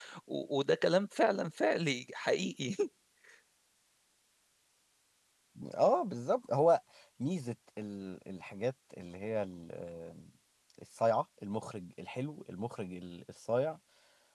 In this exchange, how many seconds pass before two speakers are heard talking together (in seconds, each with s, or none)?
none